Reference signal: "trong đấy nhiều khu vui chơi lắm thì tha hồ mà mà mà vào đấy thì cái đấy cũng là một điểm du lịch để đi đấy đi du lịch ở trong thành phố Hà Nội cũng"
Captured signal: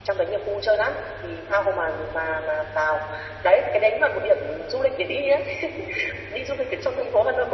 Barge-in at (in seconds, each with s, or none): none